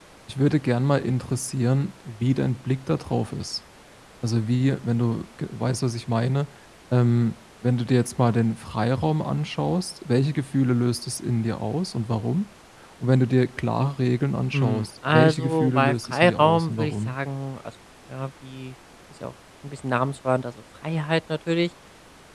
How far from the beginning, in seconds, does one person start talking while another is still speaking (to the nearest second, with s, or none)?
15 s